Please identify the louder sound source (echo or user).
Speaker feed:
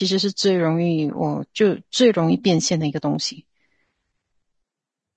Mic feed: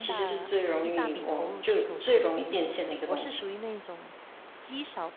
echo